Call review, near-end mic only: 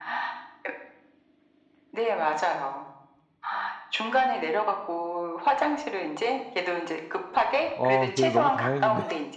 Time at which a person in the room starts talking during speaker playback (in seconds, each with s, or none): 7.7 s